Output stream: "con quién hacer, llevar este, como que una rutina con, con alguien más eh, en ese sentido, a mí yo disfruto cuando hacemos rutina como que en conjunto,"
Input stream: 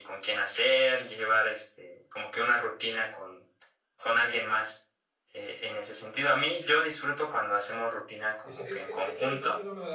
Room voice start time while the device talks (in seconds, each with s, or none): 8.4 s